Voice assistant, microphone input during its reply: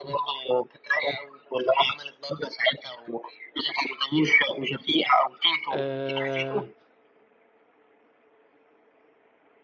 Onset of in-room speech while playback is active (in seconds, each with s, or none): 5.7 s